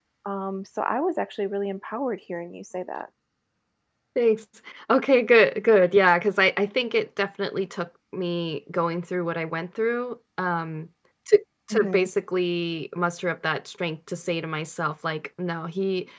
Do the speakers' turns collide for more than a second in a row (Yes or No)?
No